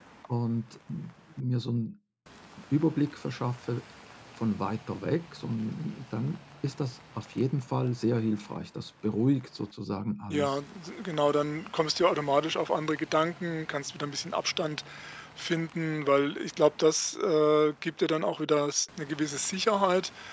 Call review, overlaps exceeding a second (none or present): none